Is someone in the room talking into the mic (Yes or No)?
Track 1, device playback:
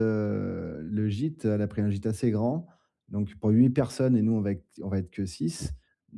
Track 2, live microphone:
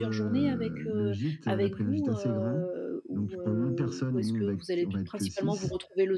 Yes